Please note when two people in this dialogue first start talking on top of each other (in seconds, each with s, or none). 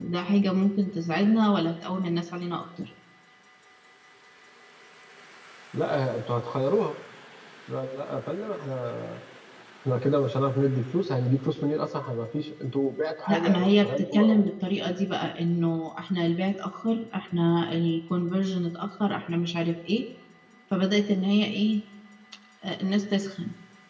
13.3 s